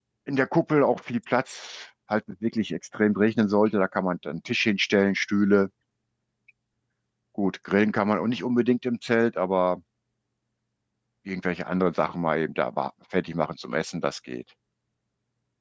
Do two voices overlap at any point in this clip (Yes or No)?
No